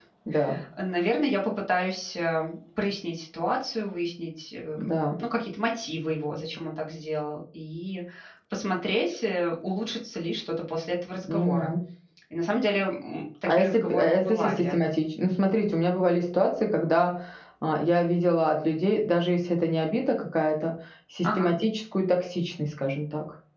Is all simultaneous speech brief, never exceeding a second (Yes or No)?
No